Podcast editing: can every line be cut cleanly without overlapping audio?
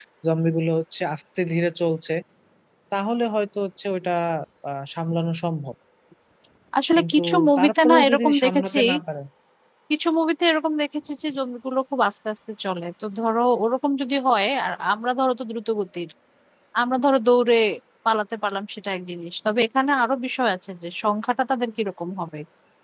No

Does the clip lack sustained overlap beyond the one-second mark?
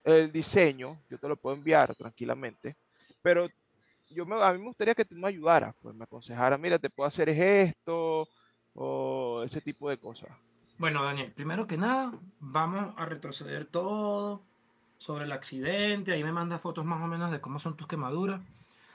Yes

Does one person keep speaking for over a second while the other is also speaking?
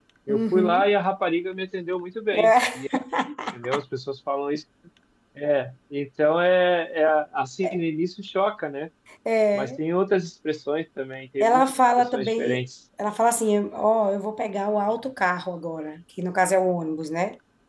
Yes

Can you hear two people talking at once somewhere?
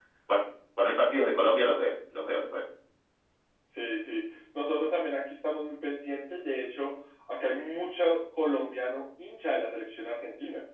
No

